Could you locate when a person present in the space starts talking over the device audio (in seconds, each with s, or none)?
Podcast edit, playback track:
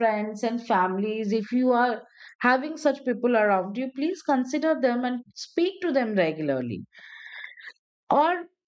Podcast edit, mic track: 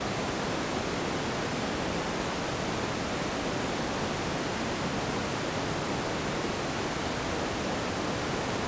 none